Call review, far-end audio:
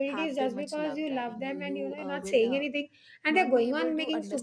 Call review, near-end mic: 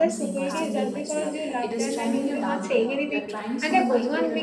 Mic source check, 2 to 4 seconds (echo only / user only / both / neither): both